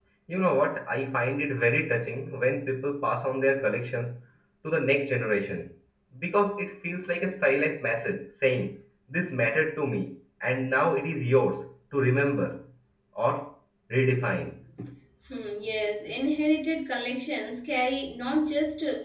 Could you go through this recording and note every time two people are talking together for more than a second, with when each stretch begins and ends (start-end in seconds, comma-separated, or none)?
none